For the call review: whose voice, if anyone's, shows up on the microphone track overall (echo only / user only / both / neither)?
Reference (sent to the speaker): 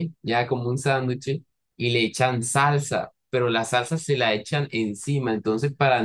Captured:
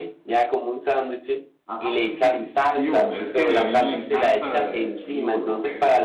both